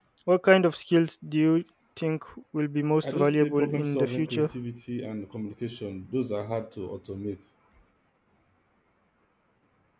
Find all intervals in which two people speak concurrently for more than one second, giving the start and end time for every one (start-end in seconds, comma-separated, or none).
3.0-4.5